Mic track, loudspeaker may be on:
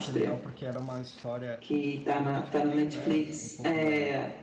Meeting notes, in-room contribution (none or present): present